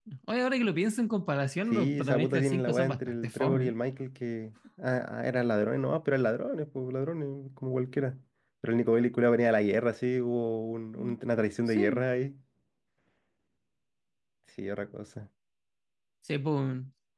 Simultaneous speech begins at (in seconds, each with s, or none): 1.7 s